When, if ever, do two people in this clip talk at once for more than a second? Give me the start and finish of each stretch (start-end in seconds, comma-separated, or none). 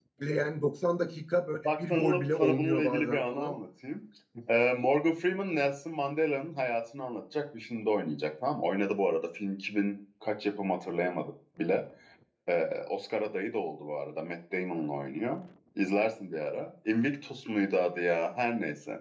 1.9-3.5